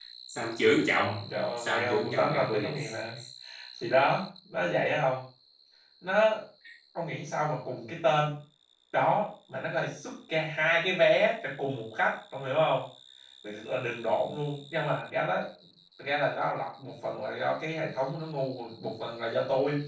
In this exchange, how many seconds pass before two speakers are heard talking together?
1.6 s

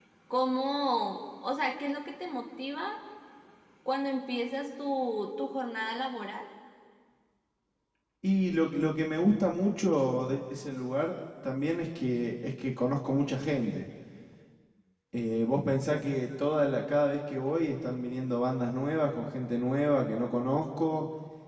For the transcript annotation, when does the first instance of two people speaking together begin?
none

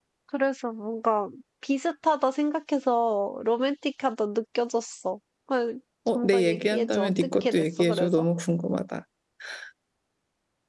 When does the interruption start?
6.1 s

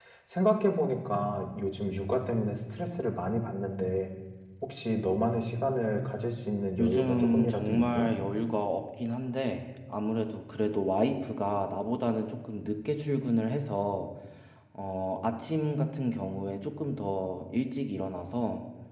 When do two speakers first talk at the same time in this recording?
6.8 s

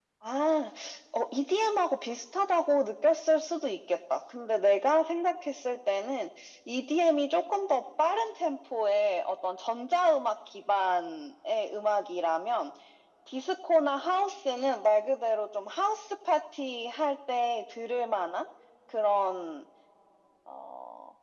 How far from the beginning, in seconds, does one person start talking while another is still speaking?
none

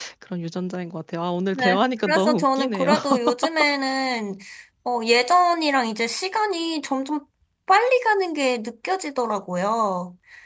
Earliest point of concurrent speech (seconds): 1.5 s

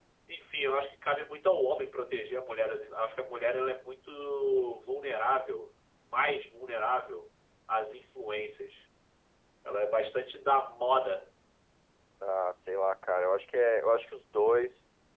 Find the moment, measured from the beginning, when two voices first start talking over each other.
none

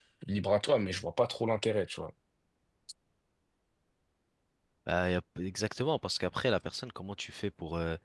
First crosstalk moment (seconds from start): none

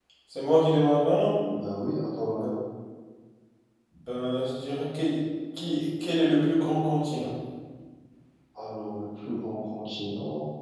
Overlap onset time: none

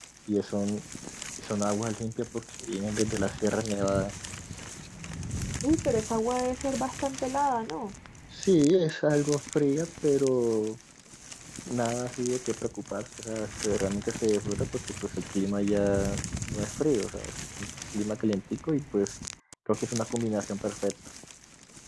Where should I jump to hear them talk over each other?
none

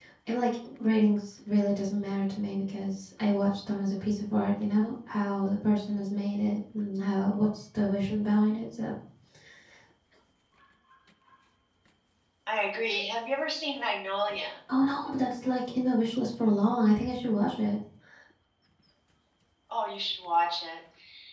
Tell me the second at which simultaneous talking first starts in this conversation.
none

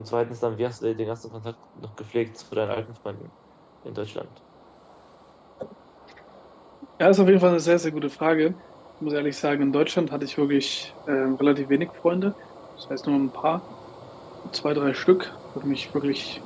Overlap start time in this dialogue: none

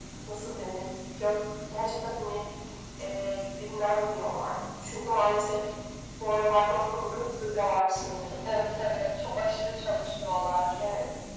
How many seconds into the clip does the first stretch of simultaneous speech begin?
none

